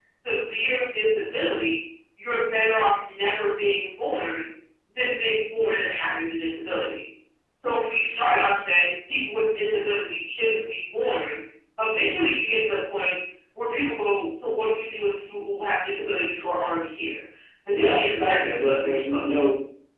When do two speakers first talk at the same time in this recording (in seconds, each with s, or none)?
17.7 s